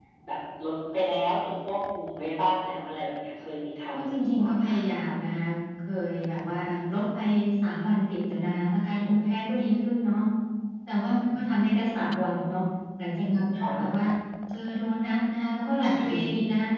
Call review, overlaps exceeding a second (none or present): present